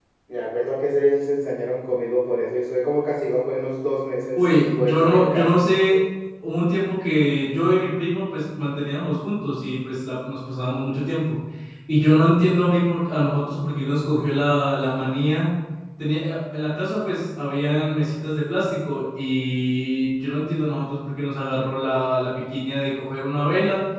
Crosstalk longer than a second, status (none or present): present